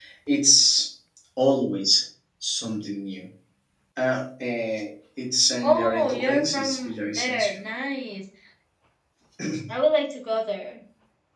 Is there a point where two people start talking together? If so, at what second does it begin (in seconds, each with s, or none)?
5.6 s